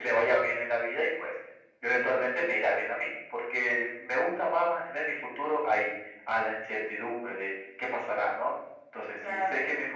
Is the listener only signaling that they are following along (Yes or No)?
Yes